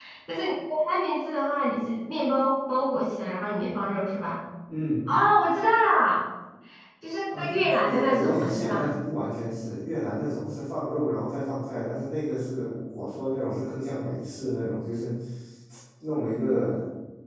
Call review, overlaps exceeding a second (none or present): present